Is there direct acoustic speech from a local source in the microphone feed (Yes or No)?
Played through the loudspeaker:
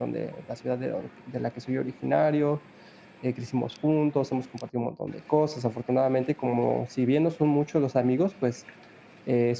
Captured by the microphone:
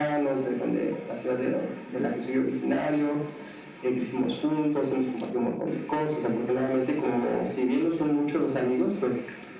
No